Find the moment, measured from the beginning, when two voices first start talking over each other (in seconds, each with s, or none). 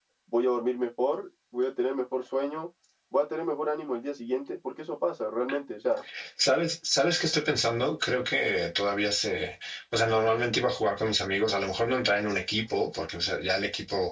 none